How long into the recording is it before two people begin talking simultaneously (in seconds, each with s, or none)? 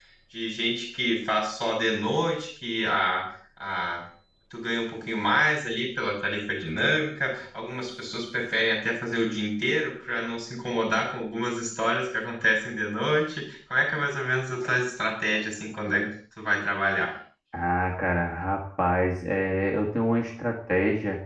none